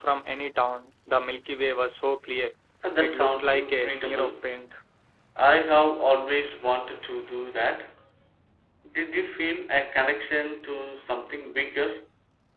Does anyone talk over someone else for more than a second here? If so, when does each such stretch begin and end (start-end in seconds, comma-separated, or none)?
3.0-4.3